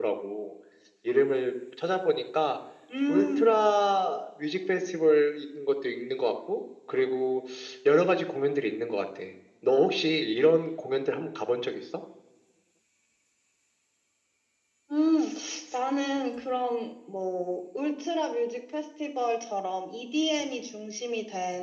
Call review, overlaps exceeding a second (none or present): none